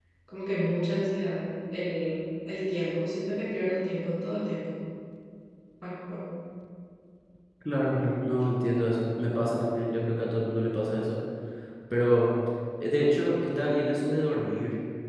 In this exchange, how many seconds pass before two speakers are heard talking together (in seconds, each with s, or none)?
none